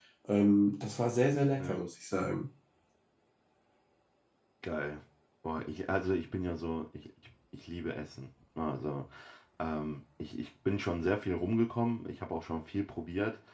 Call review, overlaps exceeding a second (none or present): none